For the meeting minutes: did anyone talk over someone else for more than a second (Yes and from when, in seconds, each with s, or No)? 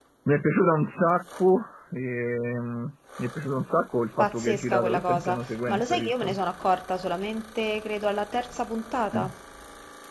Yes, from 4.2 s